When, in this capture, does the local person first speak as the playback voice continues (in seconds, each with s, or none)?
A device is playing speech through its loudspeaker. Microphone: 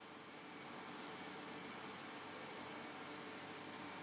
none